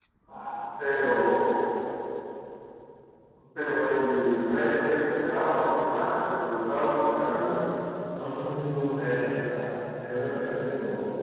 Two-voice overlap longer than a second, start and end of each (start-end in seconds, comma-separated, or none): none